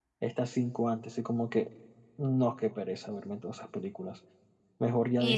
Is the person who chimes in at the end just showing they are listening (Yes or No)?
Yes